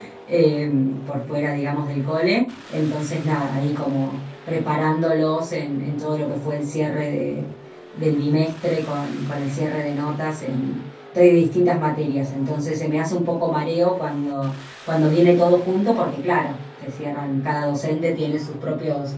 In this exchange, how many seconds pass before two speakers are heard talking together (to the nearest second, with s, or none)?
none